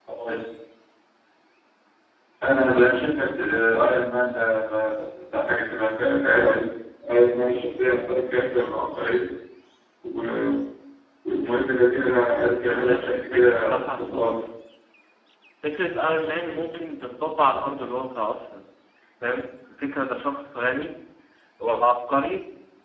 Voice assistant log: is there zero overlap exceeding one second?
No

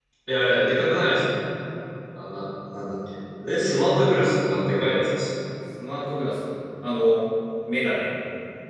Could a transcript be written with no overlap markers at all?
Yes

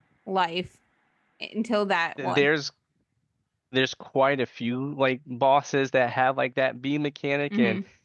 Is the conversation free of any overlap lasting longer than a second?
Yes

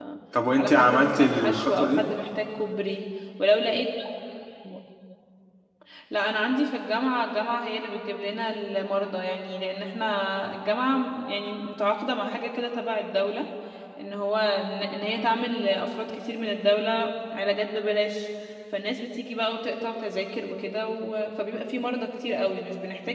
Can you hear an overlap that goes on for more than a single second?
Yes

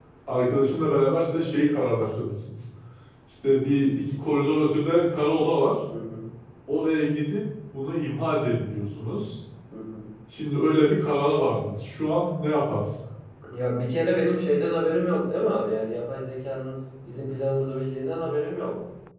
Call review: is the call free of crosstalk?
Yes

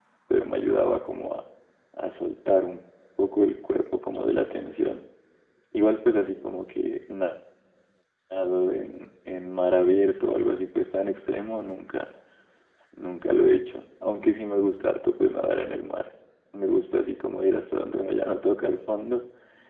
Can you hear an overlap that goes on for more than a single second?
No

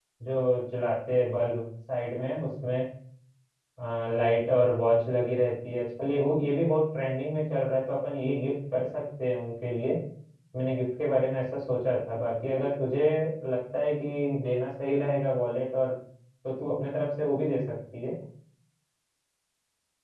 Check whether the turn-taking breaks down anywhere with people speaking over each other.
No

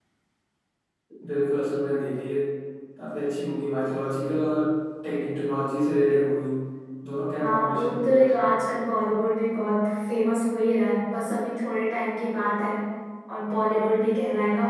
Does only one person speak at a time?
No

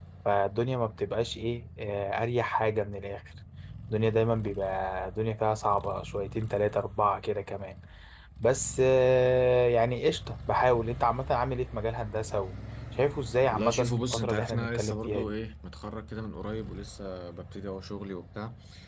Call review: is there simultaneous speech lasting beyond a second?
Yes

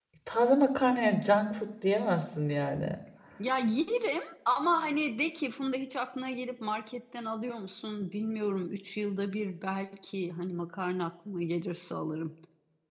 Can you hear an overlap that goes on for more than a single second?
No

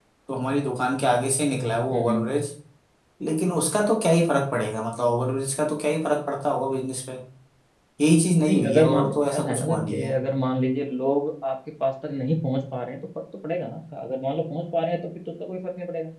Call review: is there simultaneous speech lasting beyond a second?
Yes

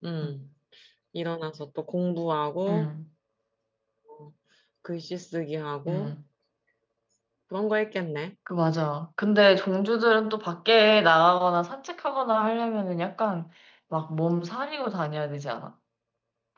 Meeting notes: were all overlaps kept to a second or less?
Yes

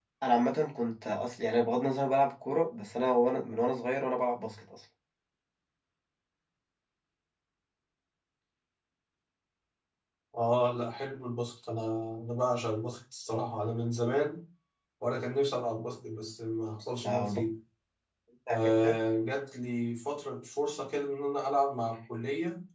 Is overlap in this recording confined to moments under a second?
Yes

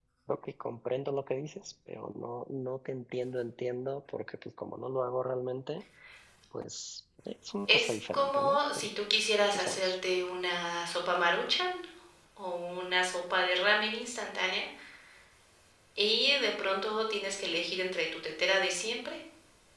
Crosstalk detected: Yes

